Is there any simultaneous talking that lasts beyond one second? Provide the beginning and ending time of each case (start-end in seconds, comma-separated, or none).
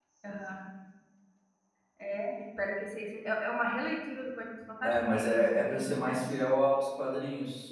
4.8-6.2